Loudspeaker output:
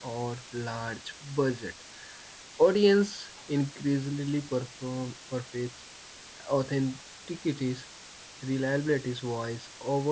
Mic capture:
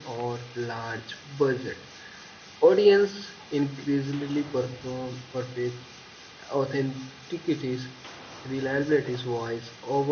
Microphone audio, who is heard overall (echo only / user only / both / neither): echo only